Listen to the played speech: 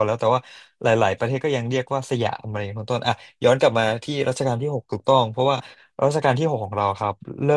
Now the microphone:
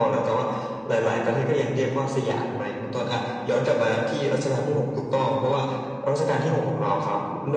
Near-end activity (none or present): none